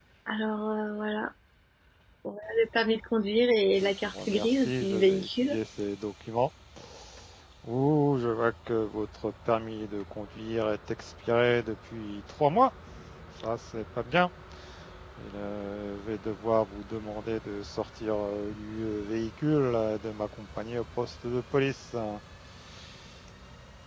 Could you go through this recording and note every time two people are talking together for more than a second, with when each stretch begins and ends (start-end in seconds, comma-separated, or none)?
3.8-5.5